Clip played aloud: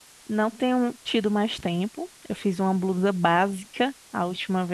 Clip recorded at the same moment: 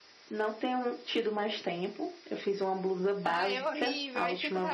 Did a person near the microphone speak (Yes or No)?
Yes